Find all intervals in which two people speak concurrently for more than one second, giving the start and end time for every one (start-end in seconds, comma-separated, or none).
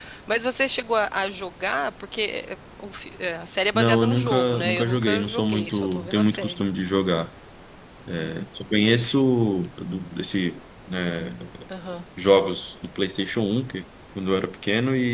3.8-6.6